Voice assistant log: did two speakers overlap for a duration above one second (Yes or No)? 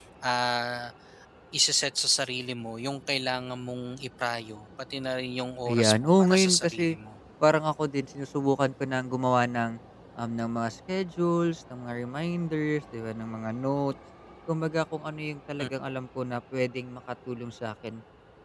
Yes